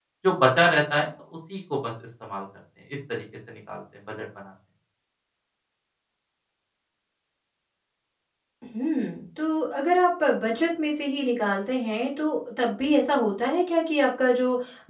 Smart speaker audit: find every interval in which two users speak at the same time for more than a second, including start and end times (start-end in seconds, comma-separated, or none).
none